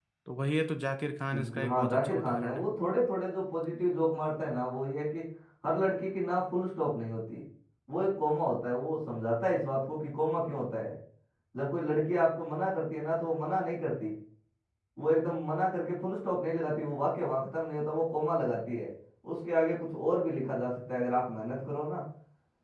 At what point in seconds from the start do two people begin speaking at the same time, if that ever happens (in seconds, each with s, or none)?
1.3 s